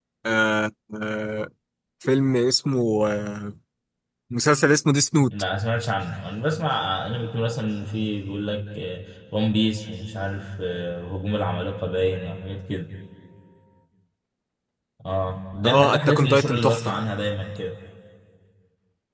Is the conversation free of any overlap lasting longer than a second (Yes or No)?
No